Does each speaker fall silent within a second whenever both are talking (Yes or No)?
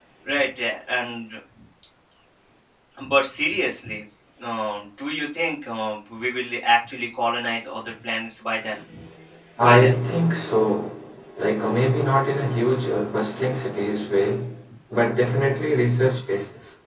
Yes